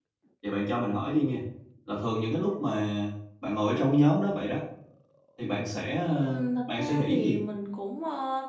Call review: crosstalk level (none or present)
present